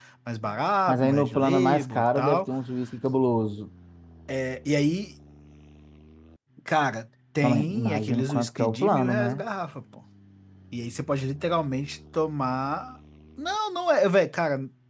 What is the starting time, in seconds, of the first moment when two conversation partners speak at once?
0.9 s

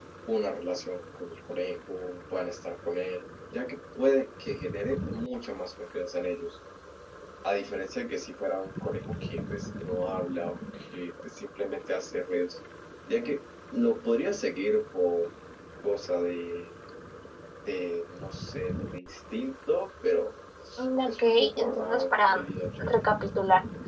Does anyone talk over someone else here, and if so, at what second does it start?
20.8 s

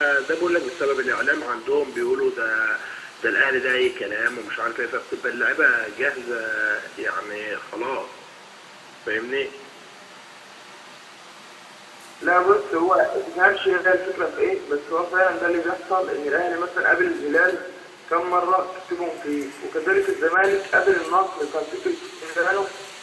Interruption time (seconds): none

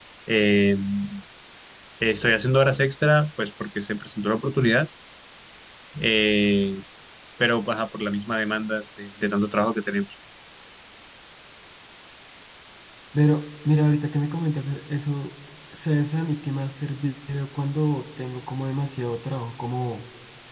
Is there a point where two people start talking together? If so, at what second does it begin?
none

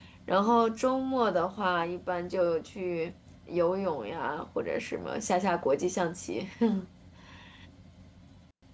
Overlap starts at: none

